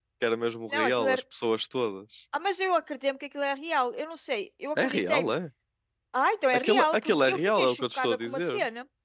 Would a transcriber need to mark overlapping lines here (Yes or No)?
Yes